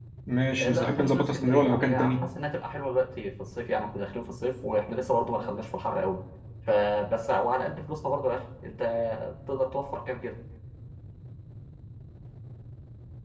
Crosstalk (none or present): present